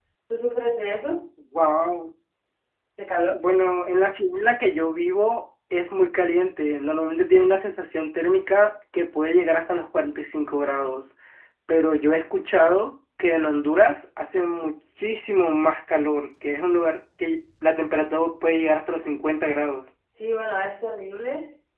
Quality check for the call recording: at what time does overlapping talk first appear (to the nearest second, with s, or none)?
none